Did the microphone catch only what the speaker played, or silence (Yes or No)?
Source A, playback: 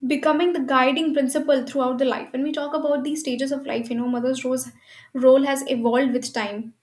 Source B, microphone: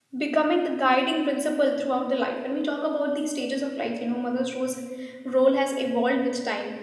Yes